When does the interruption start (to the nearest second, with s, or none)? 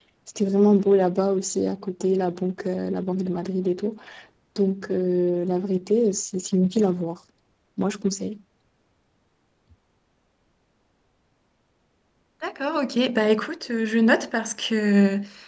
none